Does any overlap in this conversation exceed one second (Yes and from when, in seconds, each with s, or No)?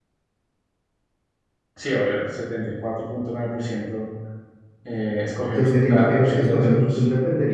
Yes, from 5.5 s